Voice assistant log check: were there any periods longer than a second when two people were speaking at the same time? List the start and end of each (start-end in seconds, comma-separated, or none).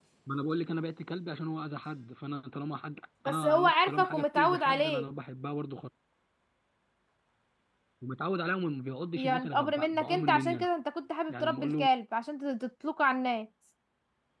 3.2-5.0, 9.2-10.7